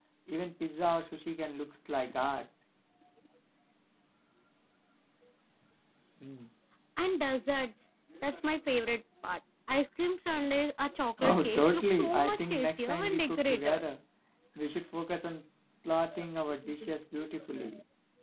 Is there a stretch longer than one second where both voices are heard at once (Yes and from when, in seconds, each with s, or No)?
Yes, from 11.2 s